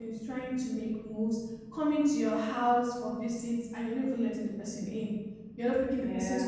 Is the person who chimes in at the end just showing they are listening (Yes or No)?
Yes